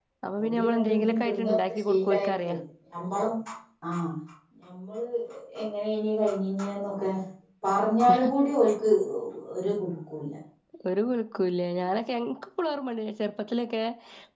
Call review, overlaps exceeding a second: present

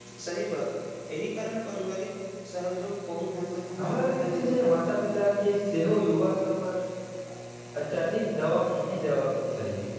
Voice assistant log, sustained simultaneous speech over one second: present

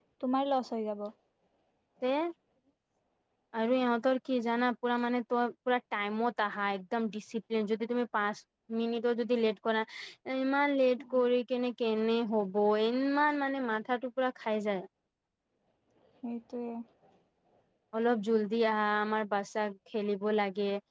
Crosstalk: none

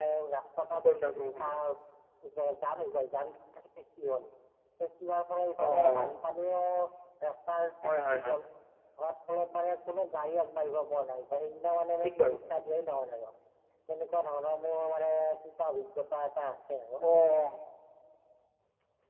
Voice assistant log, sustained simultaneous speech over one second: none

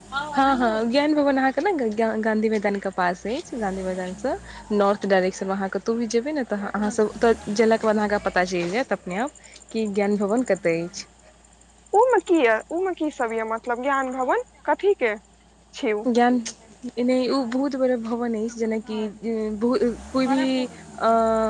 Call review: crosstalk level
none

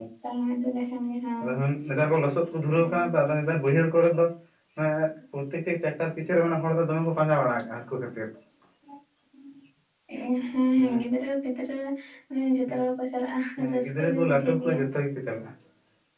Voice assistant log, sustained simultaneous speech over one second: present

